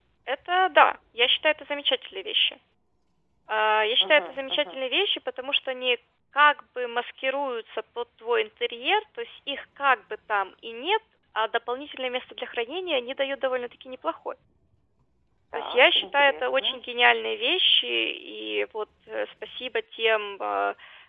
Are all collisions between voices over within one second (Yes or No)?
No